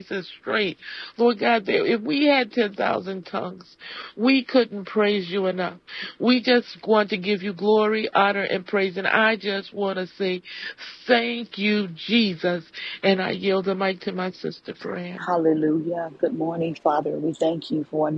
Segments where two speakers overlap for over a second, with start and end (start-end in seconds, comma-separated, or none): none